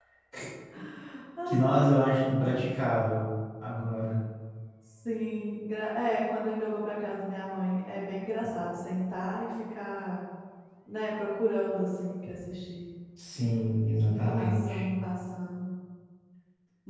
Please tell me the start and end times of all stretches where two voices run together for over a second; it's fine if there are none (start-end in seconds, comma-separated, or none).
none